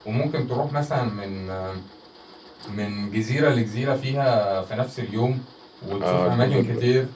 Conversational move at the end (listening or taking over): taking over